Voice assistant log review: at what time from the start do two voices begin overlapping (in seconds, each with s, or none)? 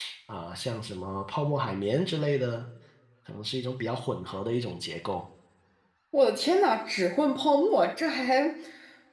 none